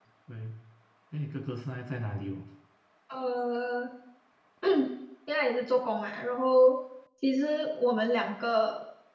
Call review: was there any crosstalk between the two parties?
No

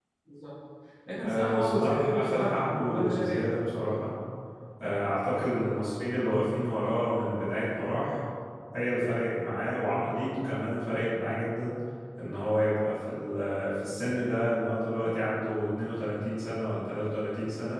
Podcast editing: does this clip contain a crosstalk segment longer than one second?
Yes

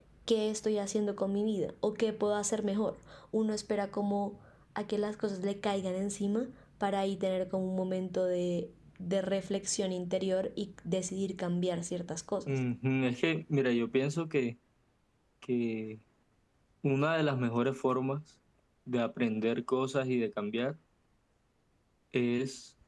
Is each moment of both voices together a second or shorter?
Yes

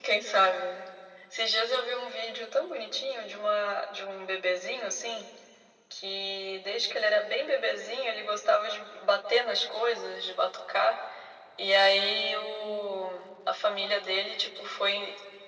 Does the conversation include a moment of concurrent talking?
No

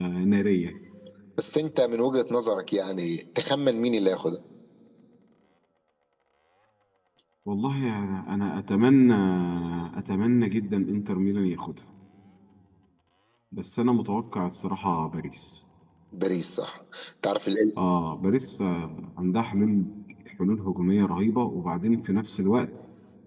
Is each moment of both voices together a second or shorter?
Yes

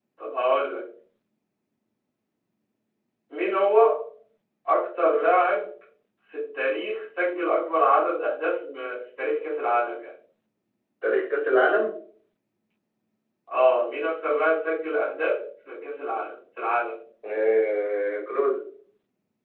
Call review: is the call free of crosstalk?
Yes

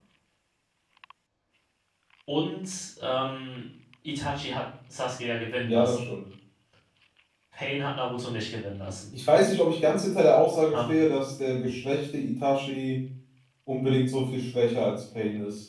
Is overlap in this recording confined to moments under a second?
Yes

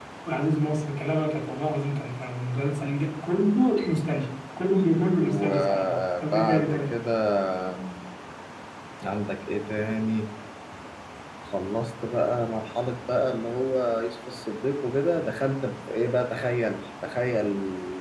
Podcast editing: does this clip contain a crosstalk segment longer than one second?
Yes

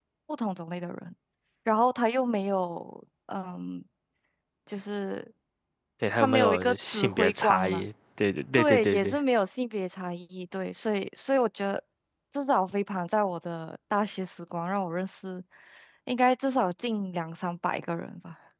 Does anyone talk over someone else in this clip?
Yes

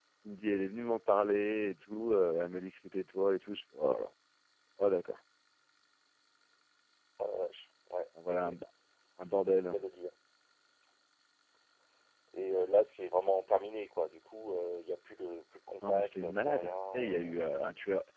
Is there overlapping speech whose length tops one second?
Yes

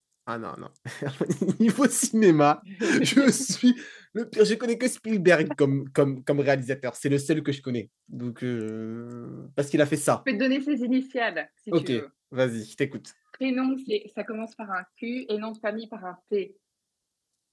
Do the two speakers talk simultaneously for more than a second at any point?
No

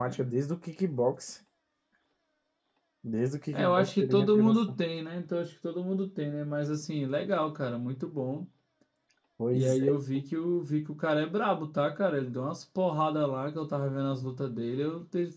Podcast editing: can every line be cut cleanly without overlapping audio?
No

